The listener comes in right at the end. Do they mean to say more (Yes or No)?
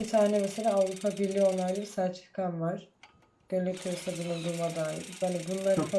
No